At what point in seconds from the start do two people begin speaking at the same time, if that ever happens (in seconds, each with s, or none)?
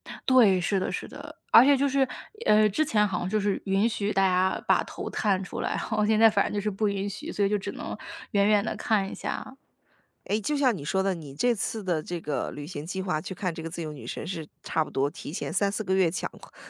none